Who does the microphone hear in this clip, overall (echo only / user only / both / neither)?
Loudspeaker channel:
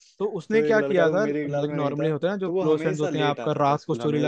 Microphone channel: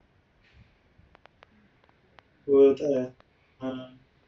user only